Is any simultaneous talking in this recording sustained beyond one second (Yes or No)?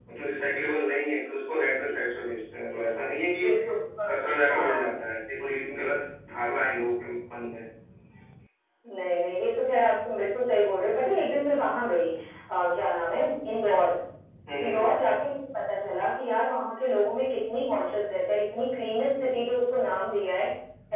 No